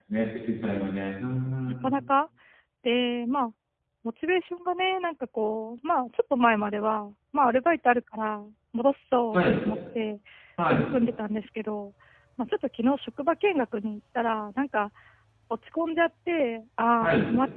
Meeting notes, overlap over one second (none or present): none